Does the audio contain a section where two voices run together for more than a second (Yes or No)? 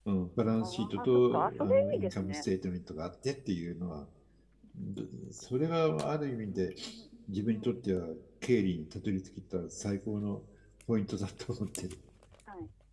Yes